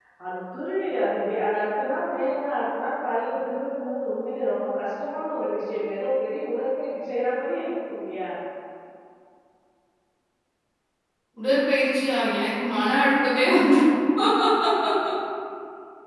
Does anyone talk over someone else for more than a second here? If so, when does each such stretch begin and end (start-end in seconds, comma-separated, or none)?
none